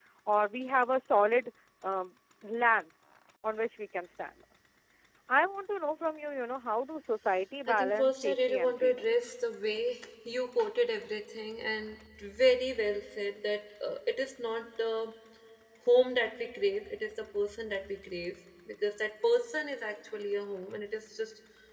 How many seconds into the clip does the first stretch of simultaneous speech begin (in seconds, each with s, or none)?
7.7 s